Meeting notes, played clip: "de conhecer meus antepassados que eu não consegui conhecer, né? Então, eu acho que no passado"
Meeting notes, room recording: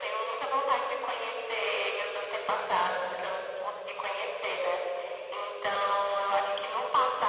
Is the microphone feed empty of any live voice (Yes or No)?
Yes